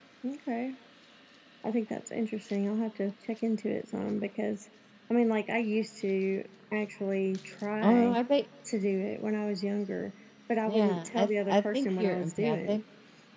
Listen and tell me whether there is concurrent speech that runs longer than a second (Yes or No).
Yes